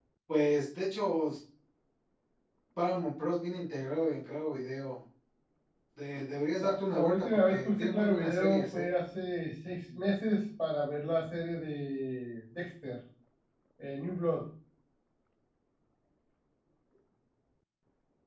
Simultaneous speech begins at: 7 s

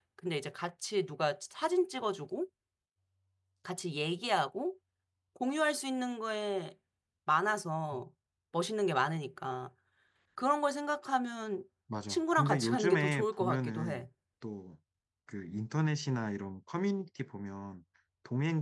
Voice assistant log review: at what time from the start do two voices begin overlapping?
12 s

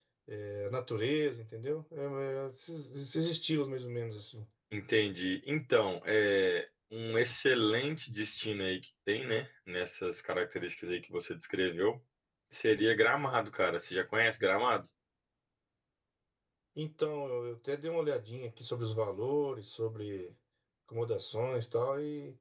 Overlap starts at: none

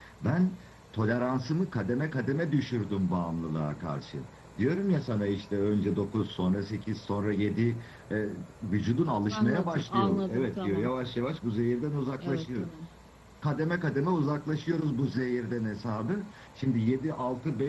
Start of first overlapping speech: 9 s

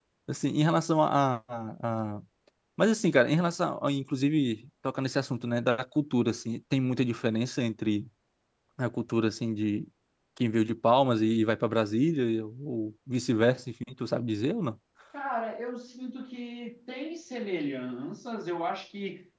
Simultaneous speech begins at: none

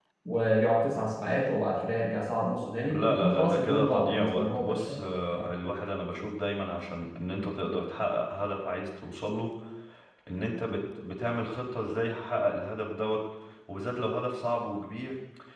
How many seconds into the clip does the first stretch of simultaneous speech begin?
3 s

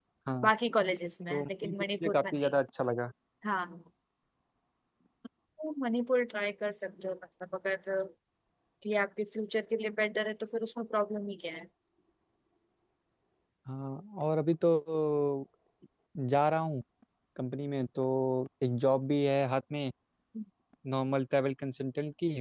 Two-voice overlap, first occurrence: 1 s

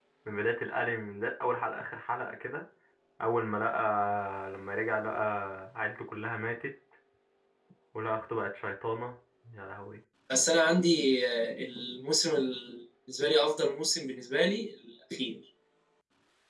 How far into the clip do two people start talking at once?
none

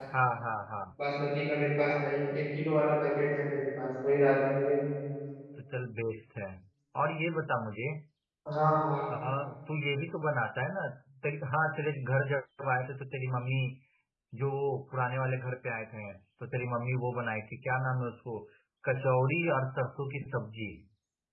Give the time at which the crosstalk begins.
none

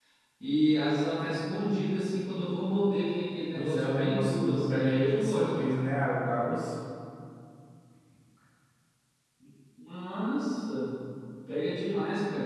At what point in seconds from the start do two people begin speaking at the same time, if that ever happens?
4 s

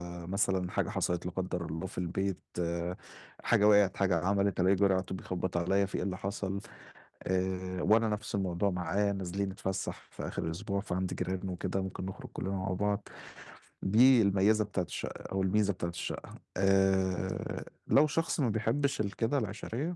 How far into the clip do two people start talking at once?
none

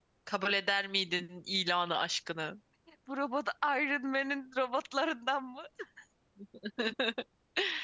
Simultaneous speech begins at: none

